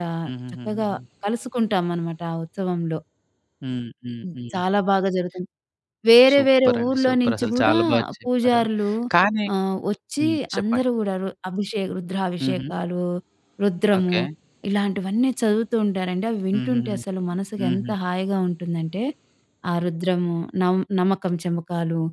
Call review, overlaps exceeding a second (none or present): present